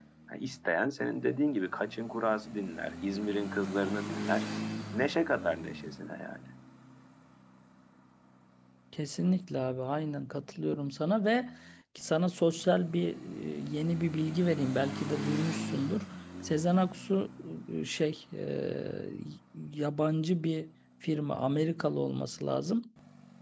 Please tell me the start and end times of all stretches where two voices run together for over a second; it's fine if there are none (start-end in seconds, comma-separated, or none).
none